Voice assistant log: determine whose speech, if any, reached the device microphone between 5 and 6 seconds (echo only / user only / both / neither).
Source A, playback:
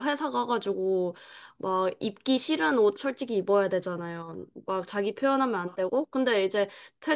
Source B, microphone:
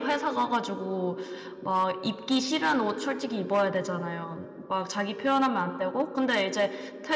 echo only